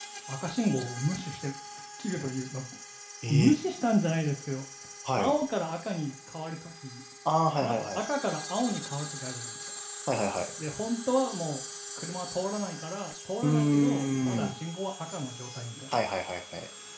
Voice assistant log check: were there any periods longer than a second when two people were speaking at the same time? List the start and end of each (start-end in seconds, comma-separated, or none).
13.4-14.6